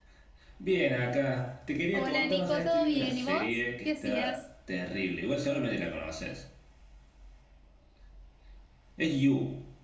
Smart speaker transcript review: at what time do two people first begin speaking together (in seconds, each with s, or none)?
1.9 s